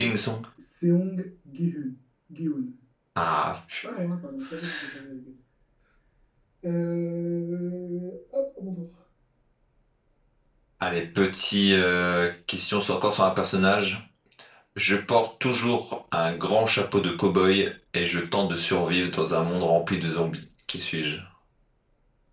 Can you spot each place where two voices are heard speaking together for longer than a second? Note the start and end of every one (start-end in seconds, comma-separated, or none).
none